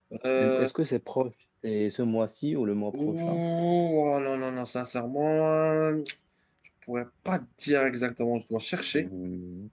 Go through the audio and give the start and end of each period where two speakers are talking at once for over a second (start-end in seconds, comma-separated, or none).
none